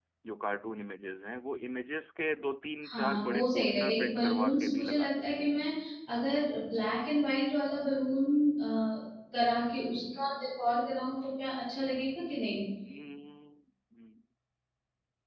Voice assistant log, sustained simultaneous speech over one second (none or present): present